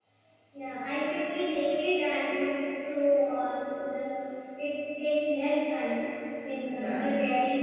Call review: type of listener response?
listening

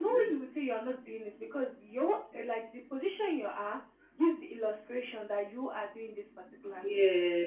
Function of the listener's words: listening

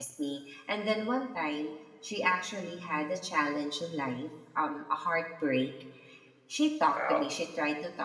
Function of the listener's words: listening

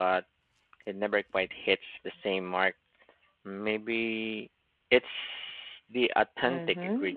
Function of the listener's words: taking over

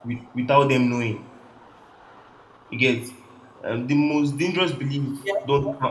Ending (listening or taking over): listening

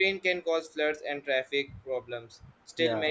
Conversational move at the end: listening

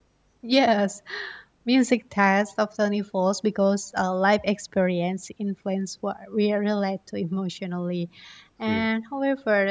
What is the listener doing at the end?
listening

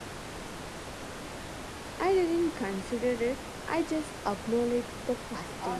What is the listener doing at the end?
taking over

